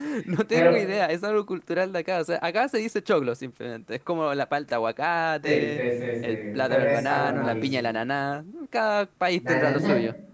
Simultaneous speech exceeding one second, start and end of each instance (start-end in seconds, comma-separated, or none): 6.2-7.9